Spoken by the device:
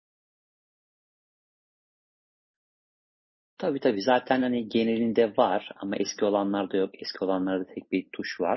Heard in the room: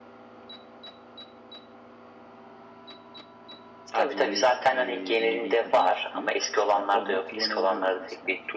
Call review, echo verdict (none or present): present